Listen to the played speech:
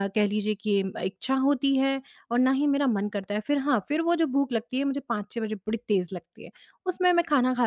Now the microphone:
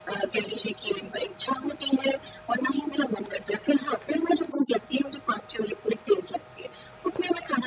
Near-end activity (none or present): none